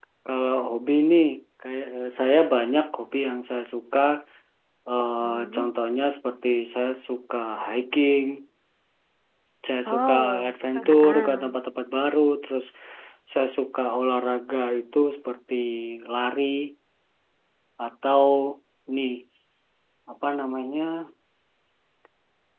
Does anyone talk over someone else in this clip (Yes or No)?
Yes